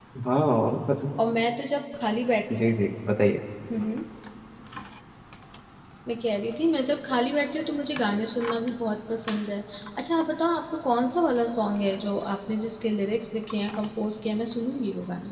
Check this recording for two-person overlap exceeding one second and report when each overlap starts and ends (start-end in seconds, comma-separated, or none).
none